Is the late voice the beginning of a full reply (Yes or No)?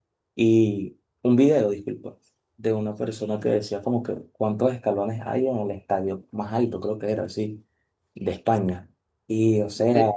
No